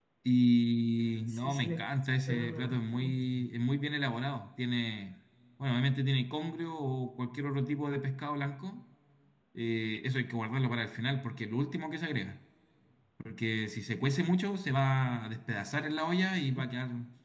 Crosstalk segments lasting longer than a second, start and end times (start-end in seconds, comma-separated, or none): 1.3-3.3